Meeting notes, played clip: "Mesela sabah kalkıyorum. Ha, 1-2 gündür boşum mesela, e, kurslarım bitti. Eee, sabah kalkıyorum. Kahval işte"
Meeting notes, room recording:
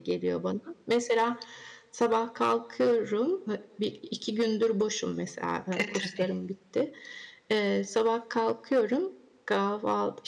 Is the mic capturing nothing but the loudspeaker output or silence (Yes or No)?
No